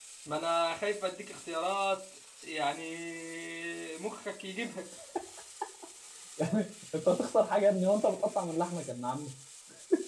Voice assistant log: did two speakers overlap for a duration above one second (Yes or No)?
No